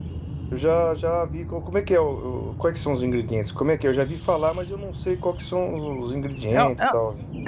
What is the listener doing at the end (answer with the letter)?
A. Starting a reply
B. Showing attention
A